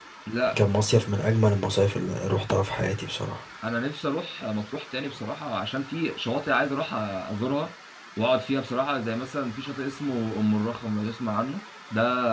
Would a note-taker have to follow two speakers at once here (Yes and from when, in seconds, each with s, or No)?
No